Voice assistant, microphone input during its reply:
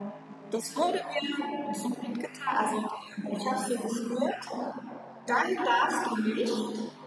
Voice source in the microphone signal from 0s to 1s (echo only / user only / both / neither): echo only